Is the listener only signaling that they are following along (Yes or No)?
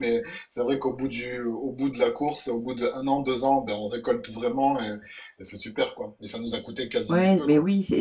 No